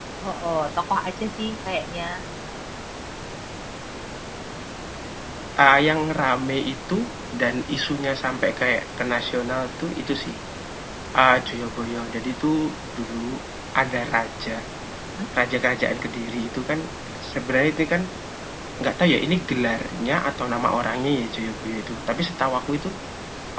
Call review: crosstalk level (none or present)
none